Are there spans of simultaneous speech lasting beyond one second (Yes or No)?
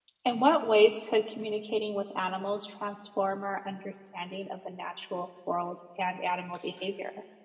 No